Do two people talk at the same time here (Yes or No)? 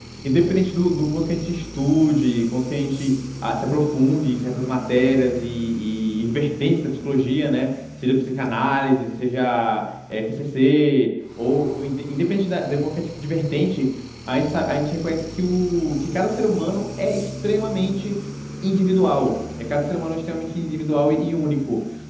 No